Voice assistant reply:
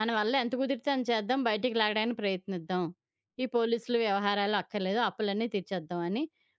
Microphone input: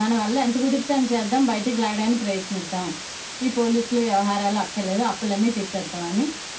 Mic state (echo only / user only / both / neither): echo only